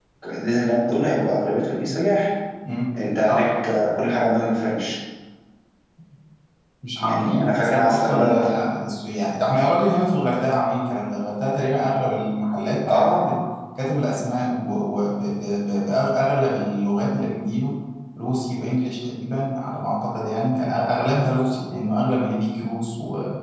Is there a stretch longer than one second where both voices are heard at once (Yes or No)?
Yes